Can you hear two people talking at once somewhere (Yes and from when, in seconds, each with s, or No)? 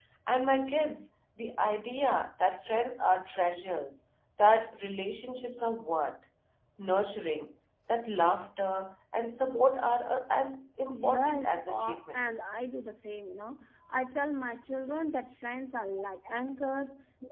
Yes, from 10.9 s